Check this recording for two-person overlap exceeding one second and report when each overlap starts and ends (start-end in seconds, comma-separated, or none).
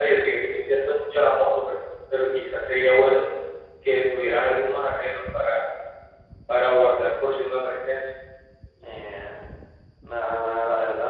none